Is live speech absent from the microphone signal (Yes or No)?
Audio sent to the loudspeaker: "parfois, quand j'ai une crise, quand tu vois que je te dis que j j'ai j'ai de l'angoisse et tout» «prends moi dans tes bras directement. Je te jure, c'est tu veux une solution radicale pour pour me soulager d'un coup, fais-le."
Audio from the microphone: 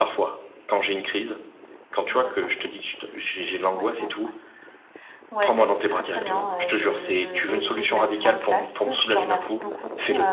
No